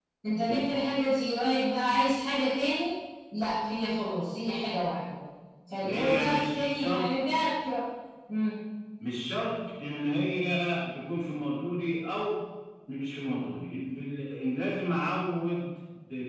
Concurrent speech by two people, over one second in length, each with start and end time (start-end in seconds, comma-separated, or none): 5.8-7.1